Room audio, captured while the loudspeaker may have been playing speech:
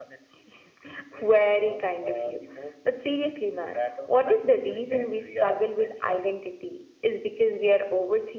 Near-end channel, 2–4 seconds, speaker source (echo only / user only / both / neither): echo only